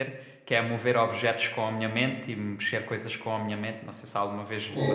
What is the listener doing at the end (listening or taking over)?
taking over